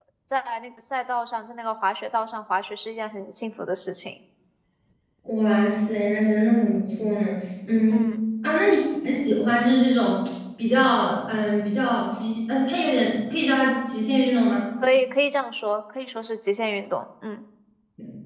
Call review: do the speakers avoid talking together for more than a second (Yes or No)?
Yes